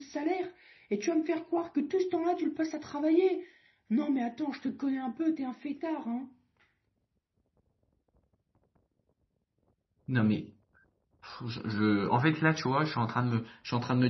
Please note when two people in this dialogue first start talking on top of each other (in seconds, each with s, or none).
none